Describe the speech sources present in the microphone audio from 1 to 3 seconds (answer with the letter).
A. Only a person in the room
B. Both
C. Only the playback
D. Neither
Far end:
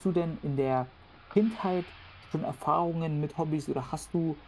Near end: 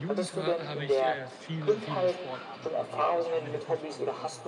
B